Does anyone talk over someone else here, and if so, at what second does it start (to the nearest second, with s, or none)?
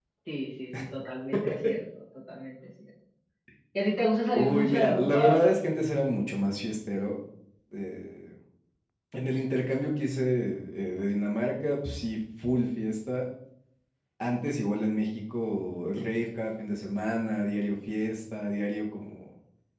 4 s